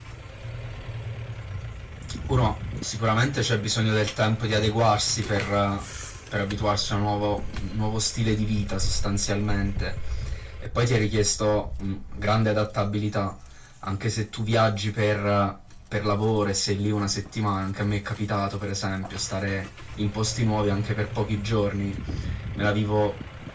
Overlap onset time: none

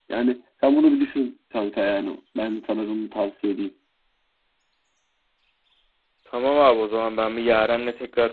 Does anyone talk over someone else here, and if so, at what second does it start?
none

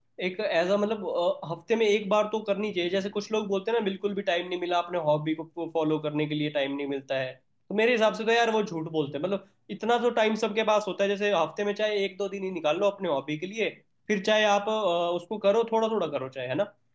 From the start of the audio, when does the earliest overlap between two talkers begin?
none

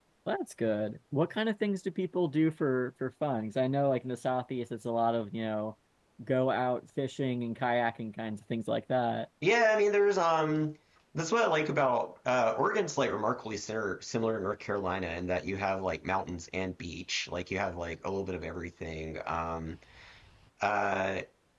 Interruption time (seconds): none

